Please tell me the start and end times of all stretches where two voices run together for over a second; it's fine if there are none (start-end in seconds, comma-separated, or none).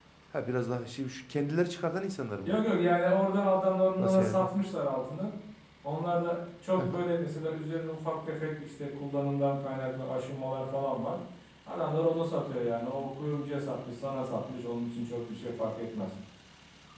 none